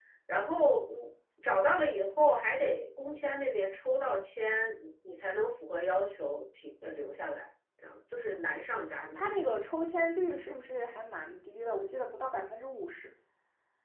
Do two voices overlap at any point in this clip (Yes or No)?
No